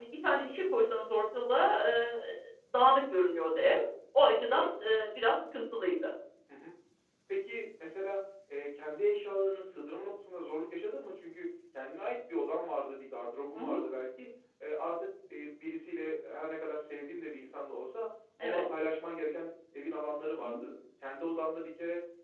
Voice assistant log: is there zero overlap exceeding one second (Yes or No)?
Yes